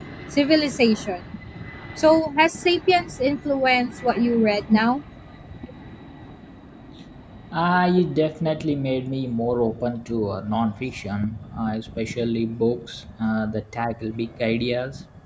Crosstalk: none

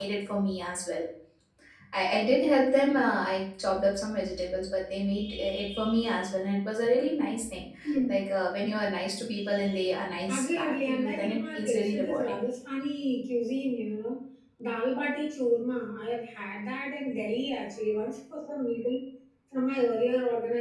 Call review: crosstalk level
present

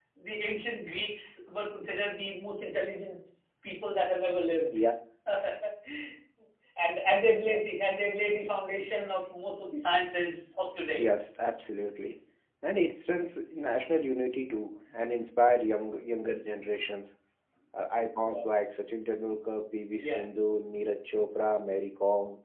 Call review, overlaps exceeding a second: none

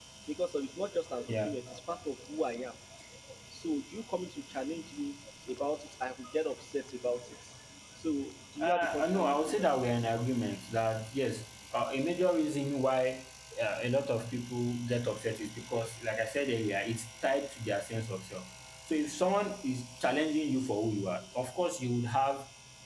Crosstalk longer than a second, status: present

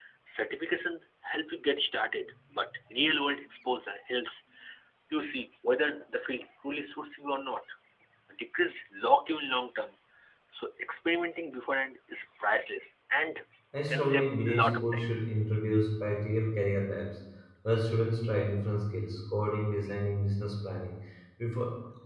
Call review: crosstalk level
present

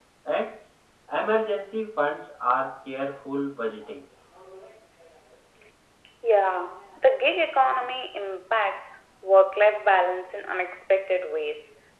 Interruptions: none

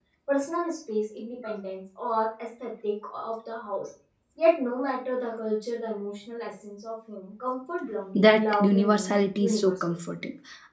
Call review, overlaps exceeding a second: present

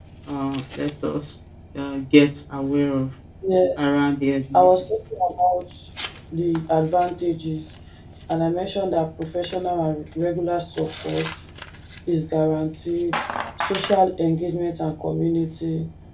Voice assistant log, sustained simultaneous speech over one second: none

